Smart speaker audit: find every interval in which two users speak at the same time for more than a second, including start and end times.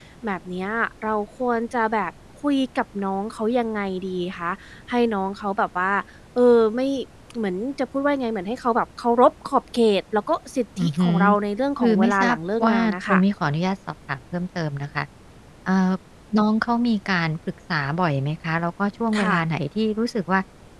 11.8-13.2

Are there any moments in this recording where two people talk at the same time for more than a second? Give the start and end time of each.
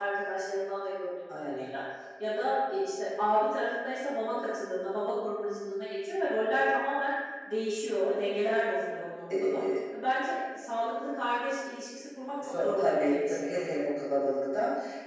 12.4-13.7

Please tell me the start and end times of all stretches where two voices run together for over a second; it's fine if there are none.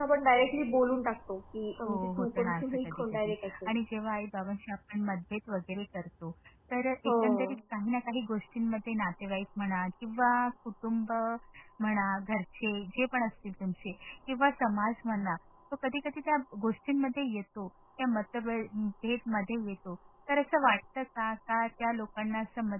1.9-3.9

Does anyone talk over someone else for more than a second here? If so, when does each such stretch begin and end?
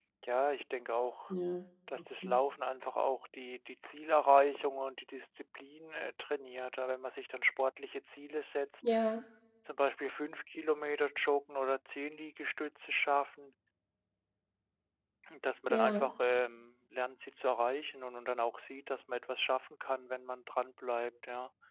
none

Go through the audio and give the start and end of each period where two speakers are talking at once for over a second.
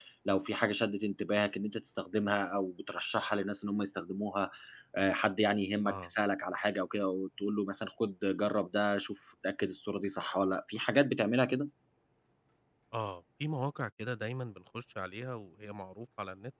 none

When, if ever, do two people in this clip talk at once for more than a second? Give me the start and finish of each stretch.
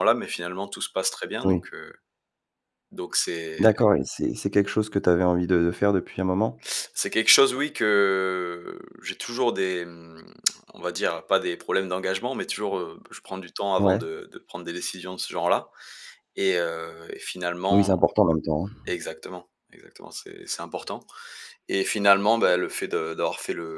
none

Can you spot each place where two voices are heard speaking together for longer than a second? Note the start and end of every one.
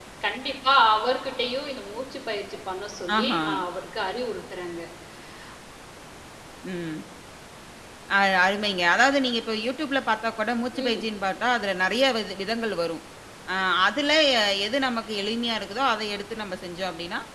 none

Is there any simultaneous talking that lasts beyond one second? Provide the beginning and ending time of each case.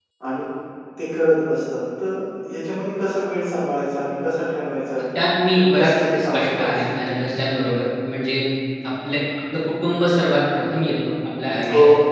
5.5-6.9

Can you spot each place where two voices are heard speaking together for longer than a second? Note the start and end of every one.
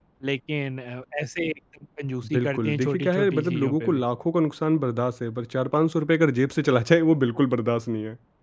2.3-4.0

